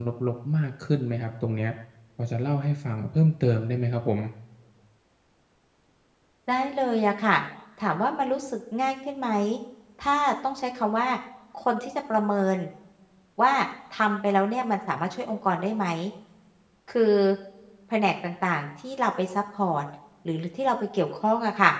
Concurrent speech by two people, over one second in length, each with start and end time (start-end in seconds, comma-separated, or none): none